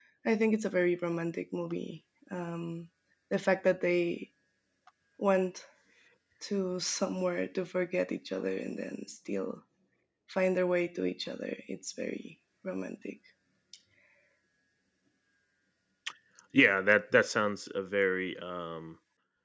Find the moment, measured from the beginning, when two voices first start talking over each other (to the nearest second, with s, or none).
none